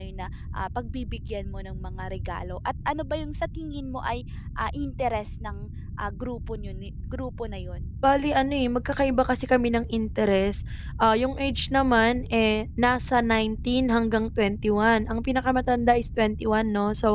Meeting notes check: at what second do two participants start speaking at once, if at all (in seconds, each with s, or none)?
none